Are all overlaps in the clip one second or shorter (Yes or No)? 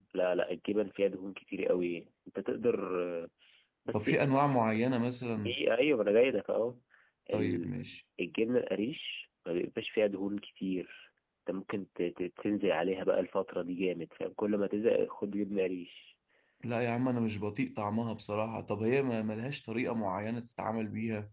Yes